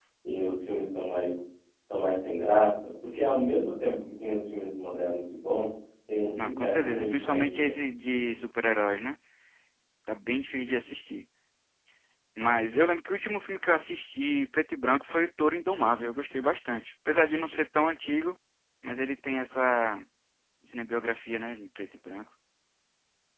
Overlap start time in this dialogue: 6.4 s

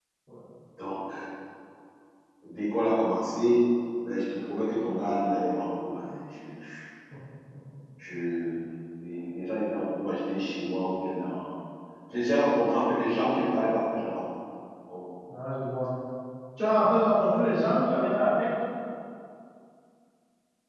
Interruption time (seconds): none

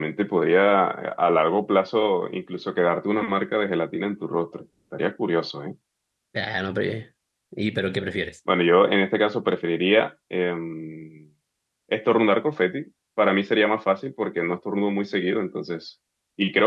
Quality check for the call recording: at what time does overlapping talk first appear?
none

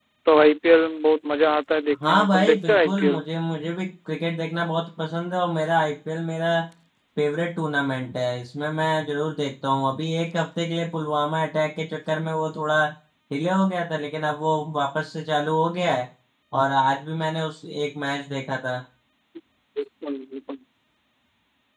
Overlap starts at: 2.0 s

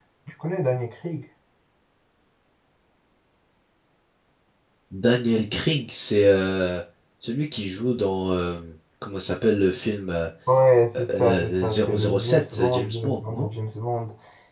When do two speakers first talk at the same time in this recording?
11.1 s

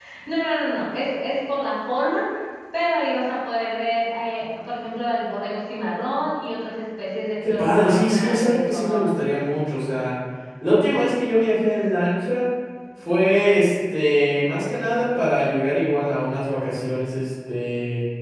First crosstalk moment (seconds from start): 7.4 s

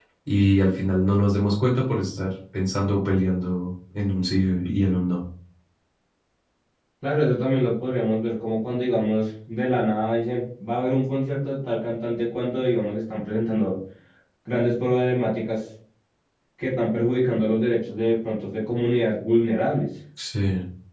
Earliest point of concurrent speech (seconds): none

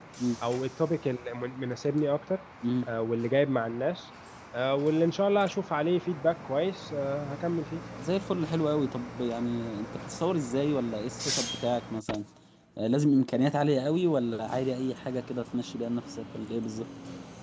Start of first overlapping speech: none

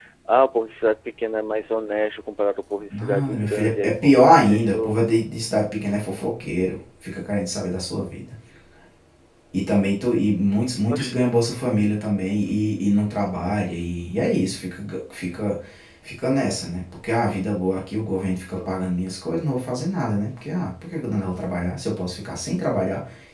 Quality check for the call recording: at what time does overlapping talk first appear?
2.9 s

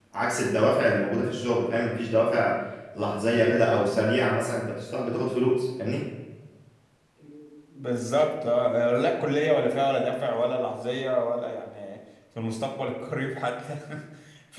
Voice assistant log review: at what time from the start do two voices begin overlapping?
none

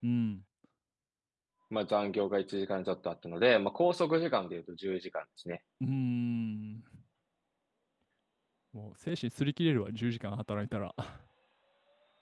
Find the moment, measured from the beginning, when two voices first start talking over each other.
none

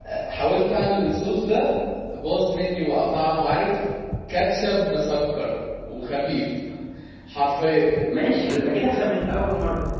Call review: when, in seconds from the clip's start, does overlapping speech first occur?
none

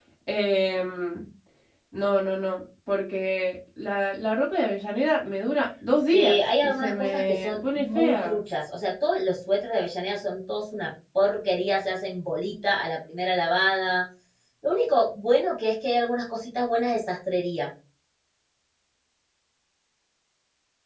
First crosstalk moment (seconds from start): 6.1 s

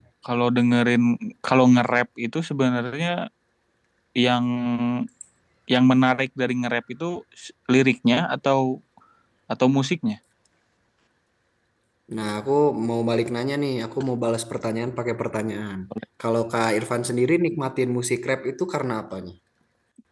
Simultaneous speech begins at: none

